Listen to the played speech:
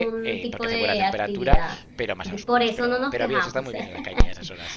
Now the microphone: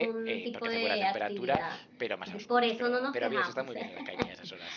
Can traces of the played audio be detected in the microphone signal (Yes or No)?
Yes